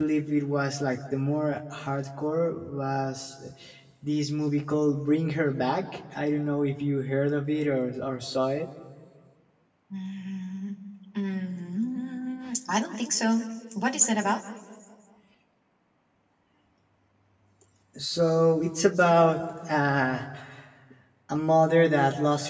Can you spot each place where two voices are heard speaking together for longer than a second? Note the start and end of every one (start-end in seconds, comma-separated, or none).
none